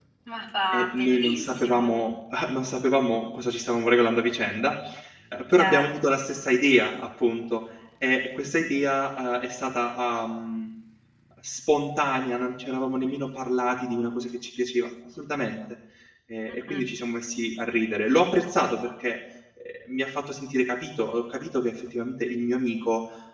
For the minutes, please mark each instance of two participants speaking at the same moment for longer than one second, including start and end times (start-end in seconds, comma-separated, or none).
0.7-1.9